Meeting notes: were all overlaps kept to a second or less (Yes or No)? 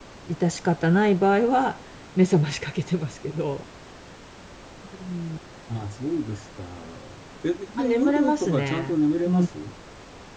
No